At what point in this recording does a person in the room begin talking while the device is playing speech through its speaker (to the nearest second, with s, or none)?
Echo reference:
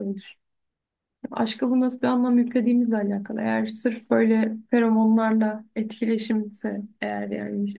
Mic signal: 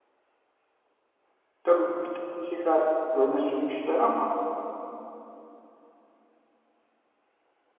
2 s